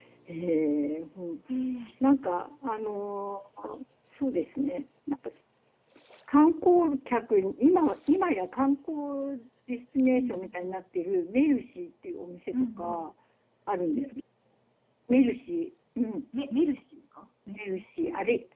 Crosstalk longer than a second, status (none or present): none